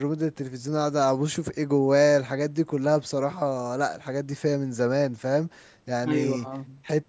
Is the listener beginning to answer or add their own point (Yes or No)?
No